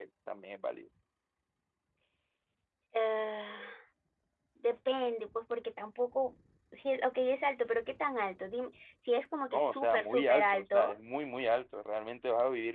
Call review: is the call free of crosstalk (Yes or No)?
No